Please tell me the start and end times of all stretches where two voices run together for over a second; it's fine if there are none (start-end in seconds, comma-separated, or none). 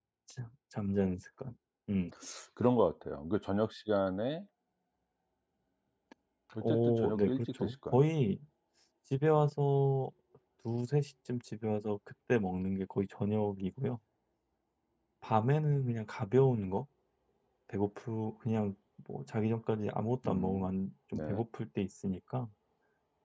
6.6-8.1